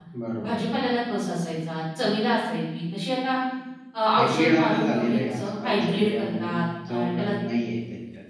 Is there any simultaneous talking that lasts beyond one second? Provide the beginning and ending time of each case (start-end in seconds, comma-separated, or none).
4.2-6.5